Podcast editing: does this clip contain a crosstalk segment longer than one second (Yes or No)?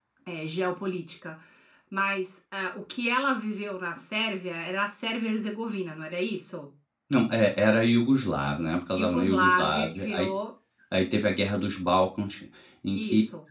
Yes